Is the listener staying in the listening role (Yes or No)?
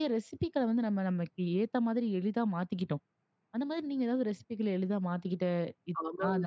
No